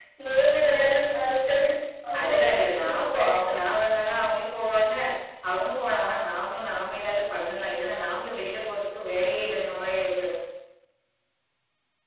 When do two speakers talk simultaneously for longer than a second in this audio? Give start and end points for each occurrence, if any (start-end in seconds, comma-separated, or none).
2.2-3.7